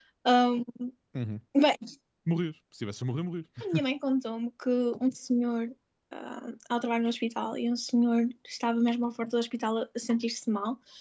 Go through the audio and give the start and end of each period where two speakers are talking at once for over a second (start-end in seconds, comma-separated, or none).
none